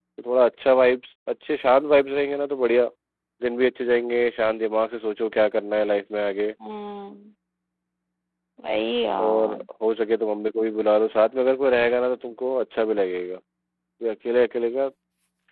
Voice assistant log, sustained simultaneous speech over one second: none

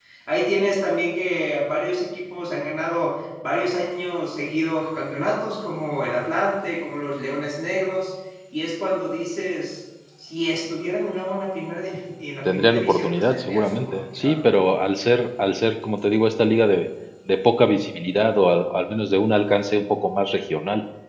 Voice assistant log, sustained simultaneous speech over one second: present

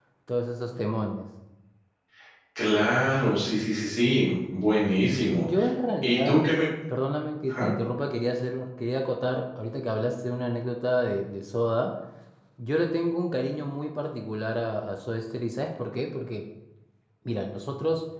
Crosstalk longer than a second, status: none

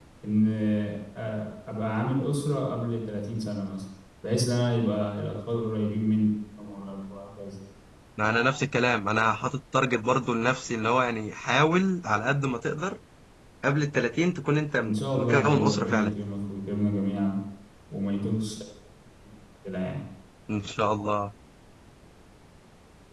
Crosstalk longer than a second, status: present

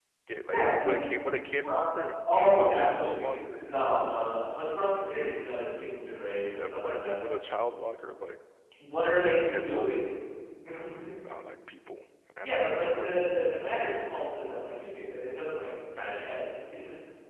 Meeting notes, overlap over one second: present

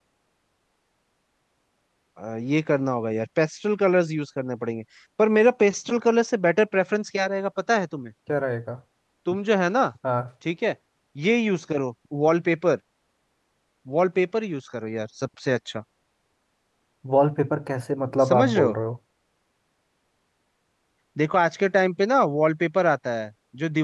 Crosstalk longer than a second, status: none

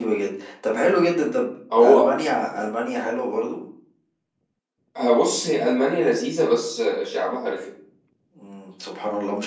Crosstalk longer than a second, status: none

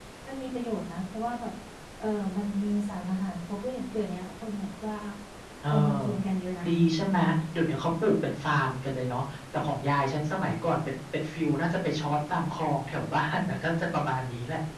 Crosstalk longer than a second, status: none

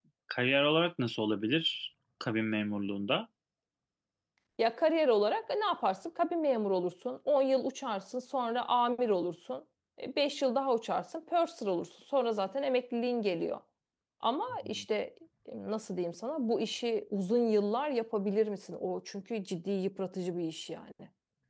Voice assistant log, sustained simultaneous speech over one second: none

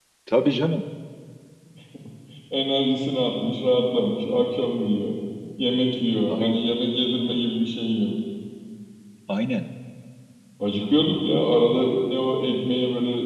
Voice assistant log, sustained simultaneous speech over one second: none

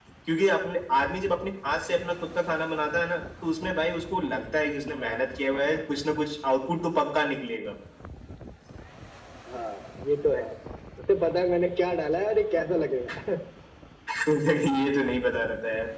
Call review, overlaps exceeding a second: none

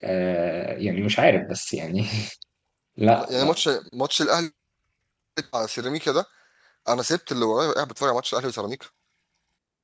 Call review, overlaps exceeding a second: none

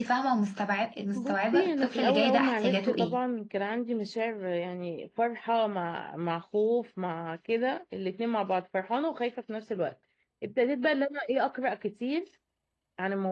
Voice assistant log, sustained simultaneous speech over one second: present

